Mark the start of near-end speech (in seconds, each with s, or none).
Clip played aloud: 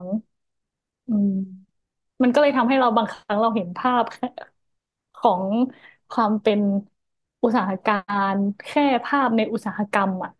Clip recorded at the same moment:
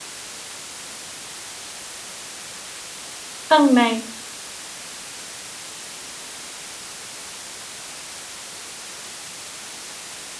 3.5 s